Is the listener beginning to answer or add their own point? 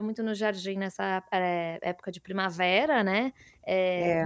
No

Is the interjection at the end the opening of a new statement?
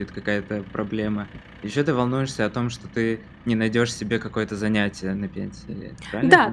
Yes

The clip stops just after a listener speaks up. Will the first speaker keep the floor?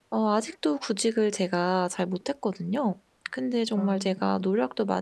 Yes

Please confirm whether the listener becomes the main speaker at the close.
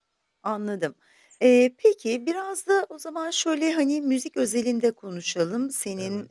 No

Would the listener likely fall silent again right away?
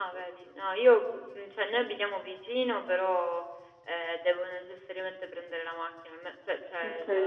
Yes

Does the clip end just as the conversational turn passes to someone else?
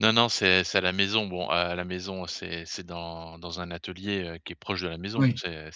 No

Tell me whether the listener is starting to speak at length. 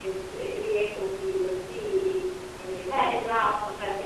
Yes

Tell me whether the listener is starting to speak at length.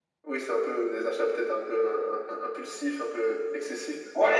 Yes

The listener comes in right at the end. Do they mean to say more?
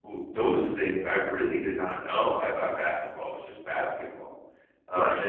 No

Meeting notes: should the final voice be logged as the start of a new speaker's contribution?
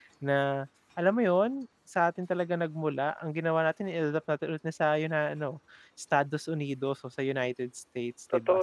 Yes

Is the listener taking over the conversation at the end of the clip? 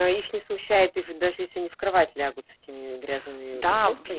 Yes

